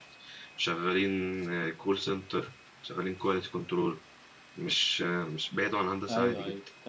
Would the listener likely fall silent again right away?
No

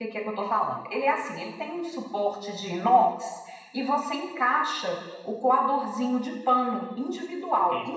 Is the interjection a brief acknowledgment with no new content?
Yes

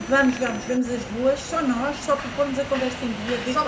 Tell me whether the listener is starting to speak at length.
No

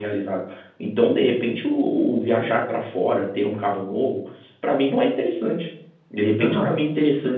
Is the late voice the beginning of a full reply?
No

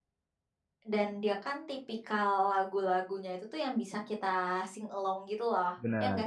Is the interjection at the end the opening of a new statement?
Yes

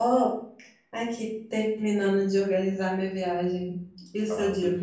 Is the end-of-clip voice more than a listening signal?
Yes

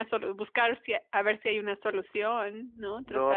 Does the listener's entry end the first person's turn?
Yes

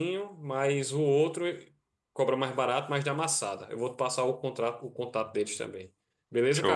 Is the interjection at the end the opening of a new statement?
Yes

